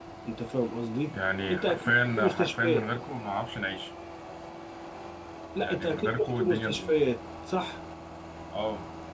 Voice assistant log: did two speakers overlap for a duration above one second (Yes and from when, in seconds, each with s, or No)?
Yes, from 1.5 s